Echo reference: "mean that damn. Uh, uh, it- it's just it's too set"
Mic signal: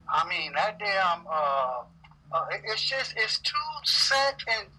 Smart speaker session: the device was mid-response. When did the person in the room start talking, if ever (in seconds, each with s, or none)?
none